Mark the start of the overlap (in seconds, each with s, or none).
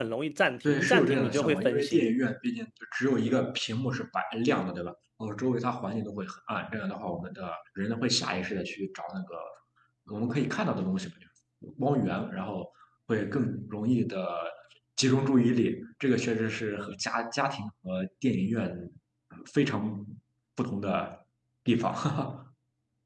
0.7 s